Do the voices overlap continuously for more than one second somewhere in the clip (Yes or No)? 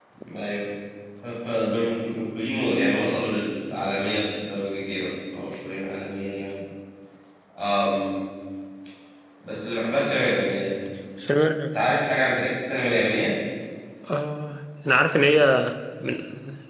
No